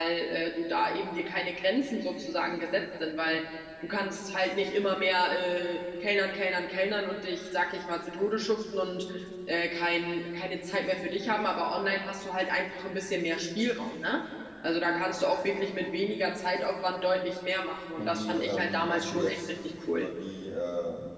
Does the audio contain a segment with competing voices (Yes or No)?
Yes